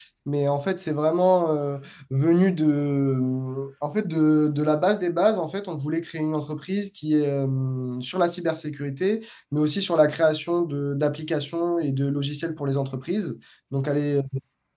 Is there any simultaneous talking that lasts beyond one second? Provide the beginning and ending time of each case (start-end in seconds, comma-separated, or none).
none